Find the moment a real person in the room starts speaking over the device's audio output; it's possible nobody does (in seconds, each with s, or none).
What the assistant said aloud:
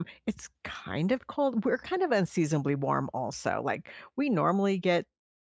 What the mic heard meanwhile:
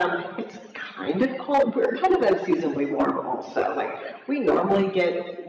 none